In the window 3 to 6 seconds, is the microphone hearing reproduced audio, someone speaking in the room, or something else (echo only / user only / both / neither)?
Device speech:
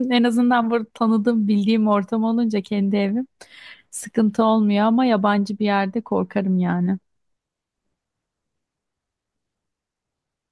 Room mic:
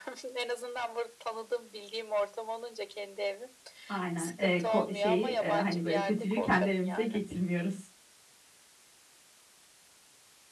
both